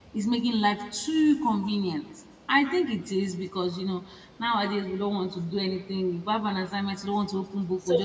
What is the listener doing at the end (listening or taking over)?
taking over